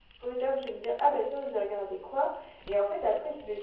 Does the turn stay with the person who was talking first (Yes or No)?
Yes